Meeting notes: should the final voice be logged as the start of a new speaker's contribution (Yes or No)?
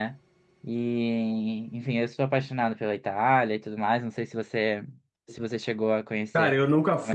Yes